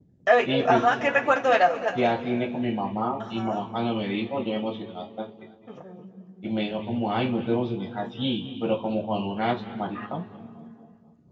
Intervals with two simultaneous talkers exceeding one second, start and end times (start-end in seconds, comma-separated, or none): none